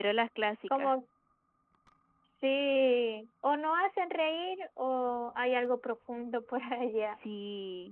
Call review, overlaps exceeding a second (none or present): none